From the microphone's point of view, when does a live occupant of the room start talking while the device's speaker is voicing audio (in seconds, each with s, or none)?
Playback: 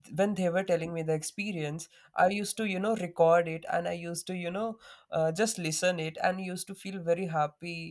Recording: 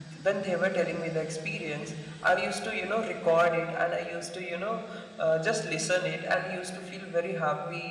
none